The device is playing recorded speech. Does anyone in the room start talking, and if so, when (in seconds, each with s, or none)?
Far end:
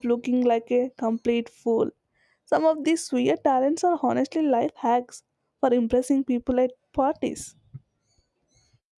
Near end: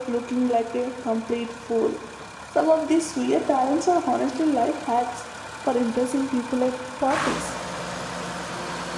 none